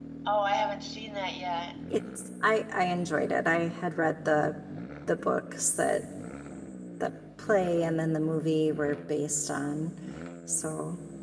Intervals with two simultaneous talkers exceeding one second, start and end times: none

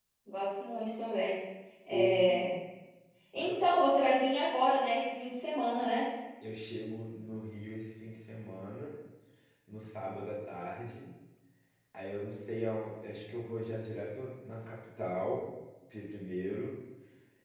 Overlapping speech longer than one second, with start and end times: none

